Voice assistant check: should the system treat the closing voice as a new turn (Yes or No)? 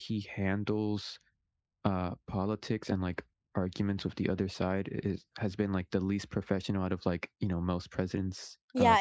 Yes